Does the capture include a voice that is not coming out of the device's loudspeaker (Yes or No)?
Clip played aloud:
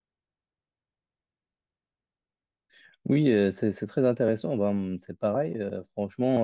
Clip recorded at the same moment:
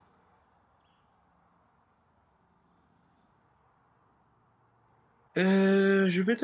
Yes